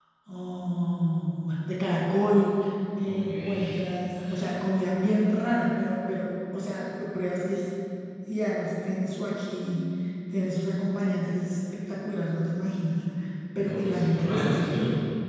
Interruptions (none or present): present